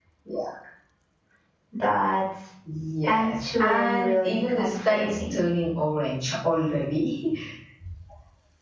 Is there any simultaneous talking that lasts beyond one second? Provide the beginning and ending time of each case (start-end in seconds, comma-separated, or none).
3.0-5.4